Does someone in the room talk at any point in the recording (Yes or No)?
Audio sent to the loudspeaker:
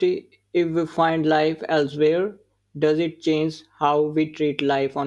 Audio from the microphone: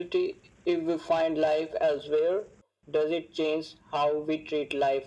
No